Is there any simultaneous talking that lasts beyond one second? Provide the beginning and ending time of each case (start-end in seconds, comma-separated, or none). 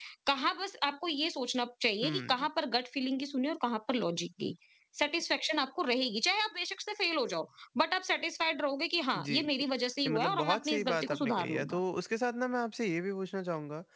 10.1-11.8